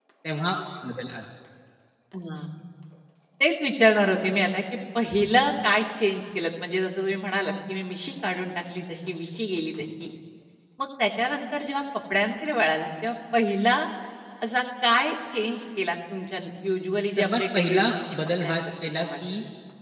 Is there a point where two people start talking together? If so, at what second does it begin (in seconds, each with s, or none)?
17.2 s